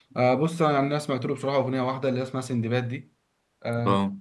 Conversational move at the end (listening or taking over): listening